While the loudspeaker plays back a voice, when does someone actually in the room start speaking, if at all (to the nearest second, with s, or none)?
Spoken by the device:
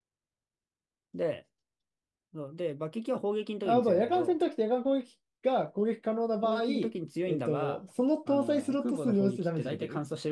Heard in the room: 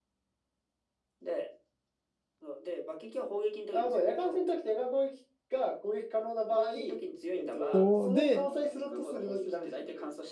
8 s